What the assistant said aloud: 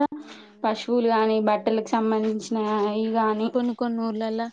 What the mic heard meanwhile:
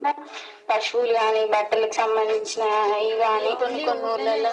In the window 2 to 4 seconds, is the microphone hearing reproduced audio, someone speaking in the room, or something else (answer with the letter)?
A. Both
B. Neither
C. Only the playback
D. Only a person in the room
A